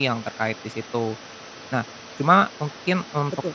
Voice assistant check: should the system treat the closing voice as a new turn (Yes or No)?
No